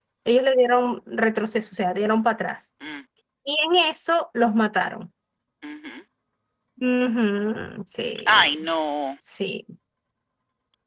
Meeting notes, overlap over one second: none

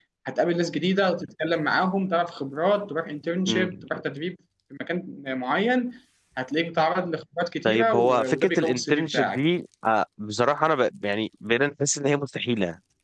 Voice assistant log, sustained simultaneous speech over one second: present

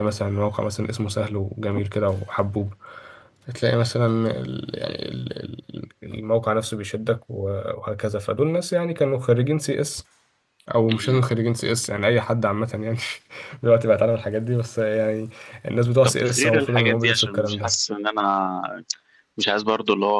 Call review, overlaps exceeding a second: present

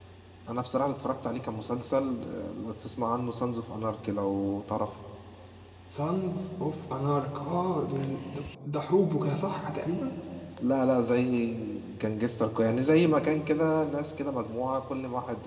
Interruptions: none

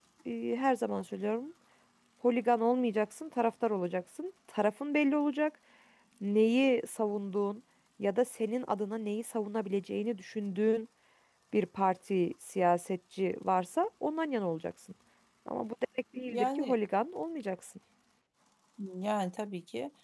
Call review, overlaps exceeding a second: none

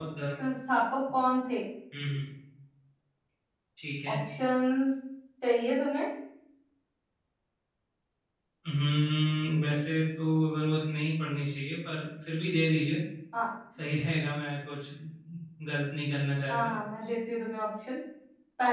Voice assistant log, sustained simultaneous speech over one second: none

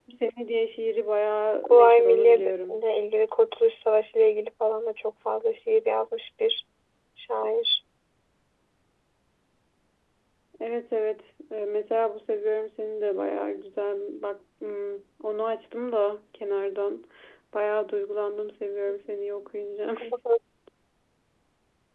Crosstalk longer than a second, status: present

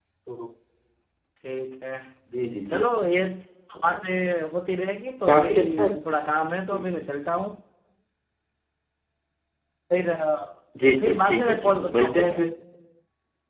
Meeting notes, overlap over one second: present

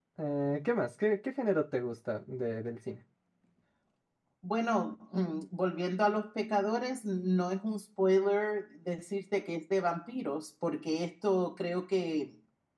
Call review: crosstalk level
none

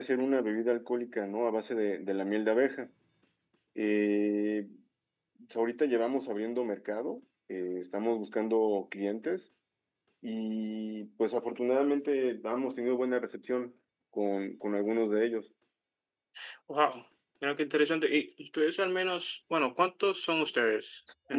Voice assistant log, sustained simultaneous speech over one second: none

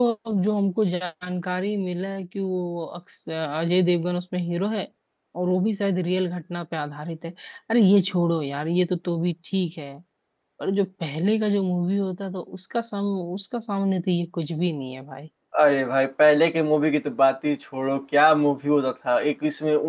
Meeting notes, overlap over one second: none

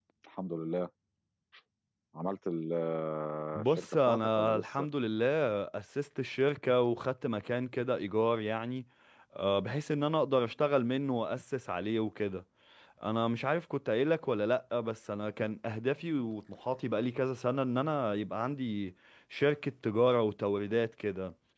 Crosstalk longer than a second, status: present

